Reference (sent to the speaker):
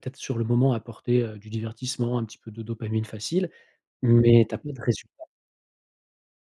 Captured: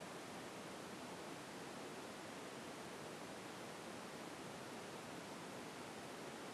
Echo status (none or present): none